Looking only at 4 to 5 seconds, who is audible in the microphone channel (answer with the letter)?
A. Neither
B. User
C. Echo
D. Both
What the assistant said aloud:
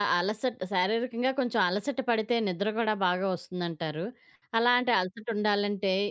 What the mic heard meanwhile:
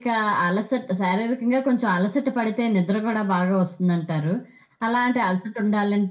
C